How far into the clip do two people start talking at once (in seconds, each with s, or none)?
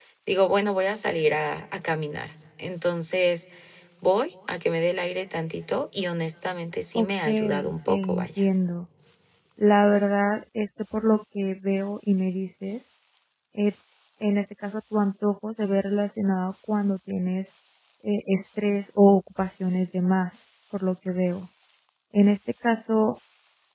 7.0 s